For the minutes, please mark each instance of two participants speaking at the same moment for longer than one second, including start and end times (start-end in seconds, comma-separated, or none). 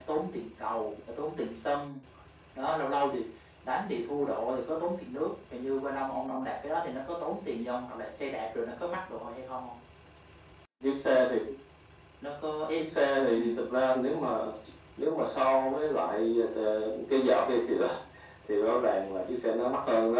none